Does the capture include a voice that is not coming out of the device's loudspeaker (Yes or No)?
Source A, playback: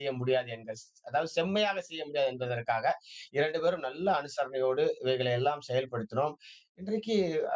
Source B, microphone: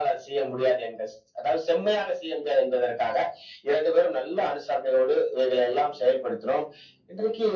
No